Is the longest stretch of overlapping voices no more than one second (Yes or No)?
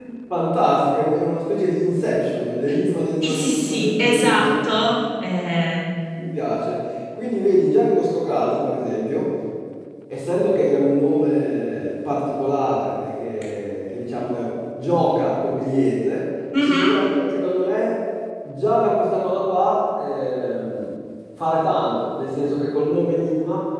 No